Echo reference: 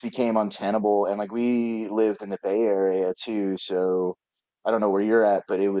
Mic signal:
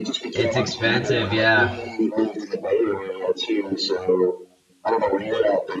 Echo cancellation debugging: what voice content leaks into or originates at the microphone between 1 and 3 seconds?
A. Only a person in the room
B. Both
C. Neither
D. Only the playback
B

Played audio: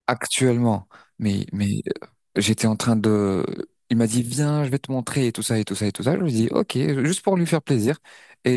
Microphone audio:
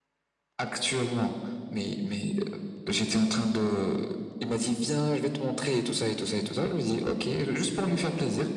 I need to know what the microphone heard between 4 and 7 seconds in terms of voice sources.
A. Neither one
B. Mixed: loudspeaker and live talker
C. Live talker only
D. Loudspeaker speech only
D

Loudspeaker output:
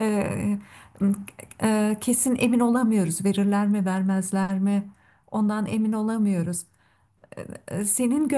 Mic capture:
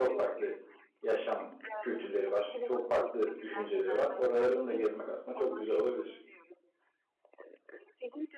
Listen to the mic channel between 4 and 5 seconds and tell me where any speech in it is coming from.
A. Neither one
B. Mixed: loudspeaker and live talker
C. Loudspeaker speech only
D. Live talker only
B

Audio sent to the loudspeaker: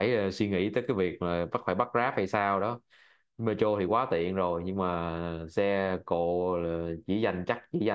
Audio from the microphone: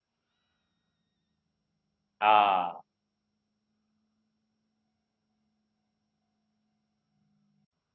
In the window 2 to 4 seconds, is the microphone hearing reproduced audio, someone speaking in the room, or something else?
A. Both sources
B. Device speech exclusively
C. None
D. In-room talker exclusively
D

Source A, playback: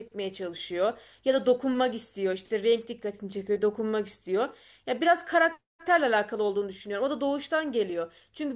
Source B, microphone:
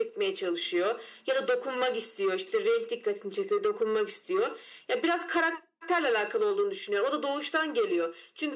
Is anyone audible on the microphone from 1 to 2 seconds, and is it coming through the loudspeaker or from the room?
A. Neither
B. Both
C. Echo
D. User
C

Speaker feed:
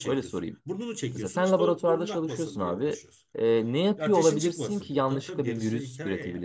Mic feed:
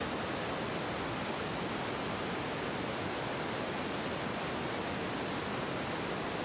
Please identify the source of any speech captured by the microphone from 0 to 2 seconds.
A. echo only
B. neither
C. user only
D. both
B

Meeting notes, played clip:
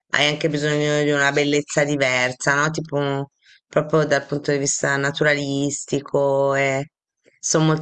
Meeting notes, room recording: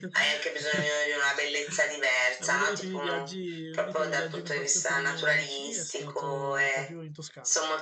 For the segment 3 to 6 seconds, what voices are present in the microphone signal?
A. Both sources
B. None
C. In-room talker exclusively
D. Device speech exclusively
A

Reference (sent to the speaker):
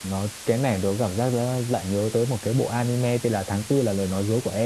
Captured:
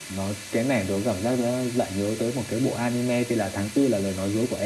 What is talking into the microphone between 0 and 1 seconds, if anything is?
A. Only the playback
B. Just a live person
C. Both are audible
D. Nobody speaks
A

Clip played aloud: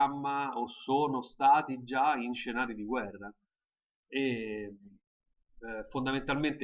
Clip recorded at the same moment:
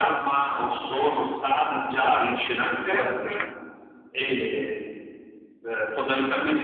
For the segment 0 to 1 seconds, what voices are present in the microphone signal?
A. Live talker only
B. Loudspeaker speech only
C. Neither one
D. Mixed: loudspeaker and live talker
B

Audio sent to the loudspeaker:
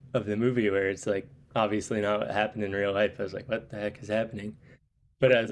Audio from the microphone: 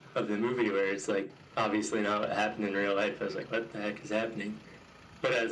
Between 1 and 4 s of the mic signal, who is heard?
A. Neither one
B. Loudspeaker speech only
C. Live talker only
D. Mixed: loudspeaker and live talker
B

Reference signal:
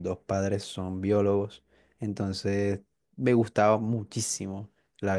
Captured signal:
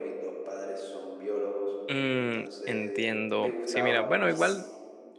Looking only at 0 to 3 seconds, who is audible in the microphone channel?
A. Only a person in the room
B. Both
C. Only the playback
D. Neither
B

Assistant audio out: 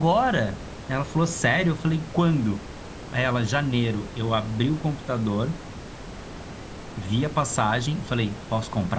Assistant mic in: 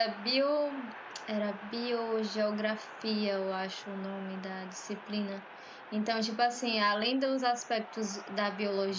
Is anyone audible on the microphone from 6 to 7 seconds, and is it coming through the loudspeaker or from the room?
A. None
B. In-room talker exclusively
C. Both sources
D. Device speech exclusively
B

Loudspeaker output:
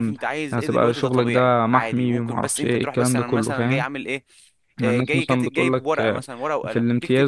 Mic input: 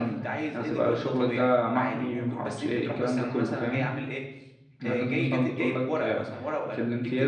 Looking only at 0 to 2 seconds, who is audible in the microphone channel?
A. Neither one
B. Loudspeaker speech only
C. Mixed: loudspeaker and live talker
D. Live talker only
B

